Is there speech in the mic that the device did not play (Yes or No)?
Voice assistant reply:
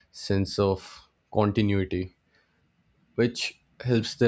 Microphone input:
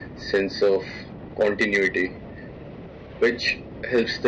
No